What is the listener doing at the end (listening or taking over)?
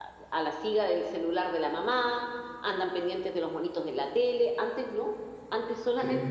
listening